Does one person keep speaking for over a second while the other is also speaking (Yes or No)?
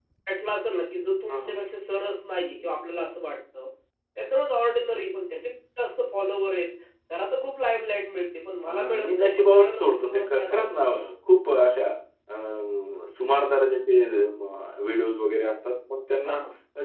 Yes